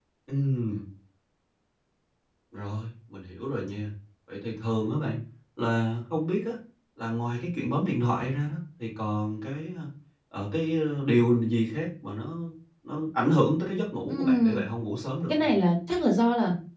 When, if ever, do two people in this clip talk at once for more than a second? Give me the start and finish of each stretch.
none

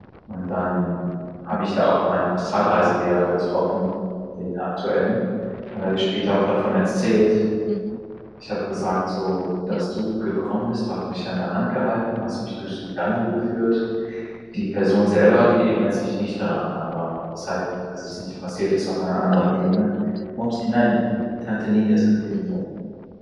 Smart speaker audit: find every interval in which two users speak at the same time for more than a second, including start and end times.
none

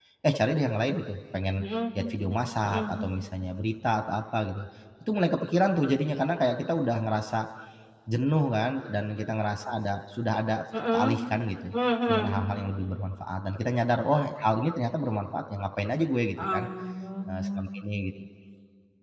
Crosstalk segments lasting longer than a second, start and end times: none

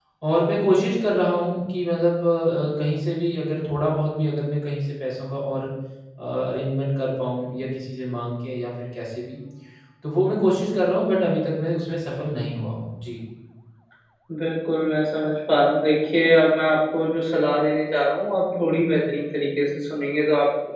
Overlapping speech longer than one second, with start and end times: none

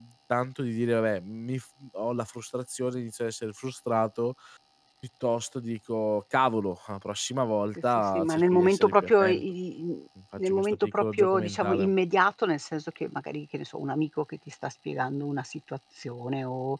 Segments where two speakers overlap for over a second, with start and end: 8.0-9.4, 10.4-11.9

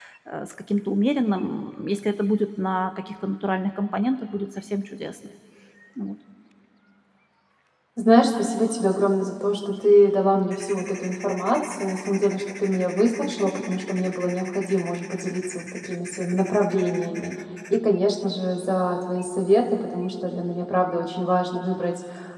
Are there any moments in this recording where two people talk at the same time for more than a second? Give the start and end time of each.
none

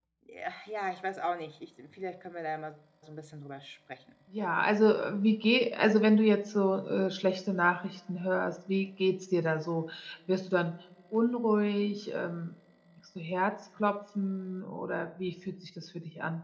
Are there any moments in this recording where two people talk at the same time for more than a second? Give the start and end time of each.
none

